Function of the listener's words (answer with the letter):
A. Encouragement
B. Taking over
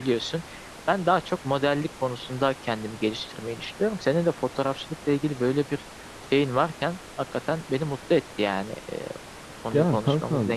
B